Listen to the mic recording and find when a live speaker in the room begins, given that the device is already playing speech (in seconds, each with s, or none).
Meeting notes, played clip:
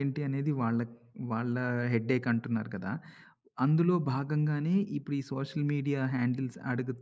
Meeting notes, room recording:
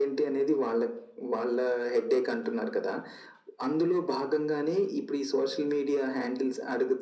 none